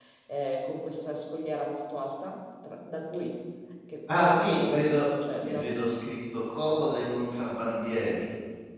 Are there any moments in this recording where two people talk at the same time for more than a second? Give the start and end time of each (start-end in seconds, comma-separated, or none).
4.2-5.6